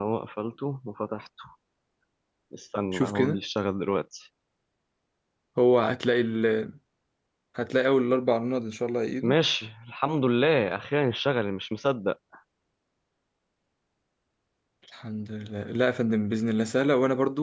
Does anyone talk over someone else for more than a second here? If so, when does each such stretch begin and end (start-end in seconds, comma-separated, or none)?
none